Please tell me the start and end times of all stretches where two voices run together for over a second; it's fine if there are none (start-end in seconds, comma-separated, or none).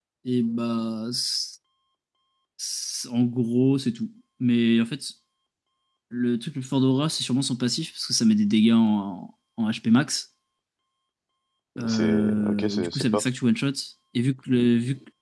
11.8-13.2